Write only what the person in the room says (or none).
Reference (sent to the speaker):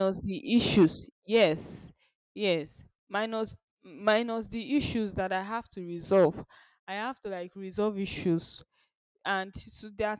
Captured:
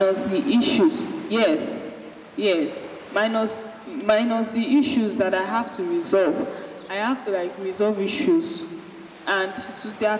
none